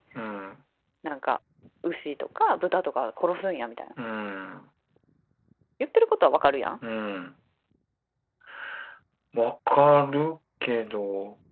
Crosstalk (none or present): none